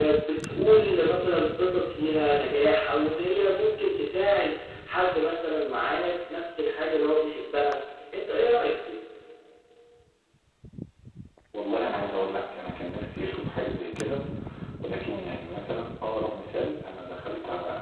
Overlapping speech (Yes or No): No